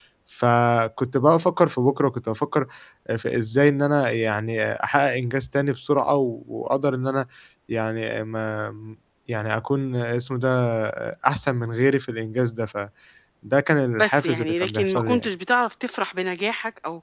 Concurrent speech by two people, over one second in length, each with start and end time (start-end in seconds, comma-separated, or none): 14.0-15.3